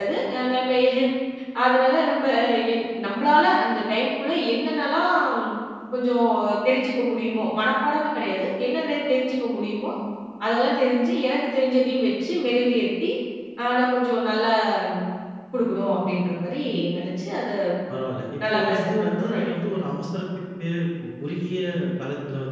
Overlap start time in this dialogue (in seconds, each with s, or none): 18.5 s